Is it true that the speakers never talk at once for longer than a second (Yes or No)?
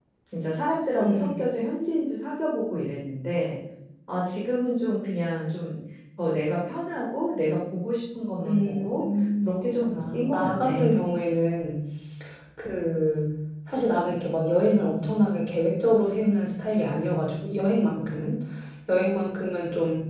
No